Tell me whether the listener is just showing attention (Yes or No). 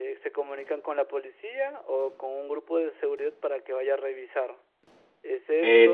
Yes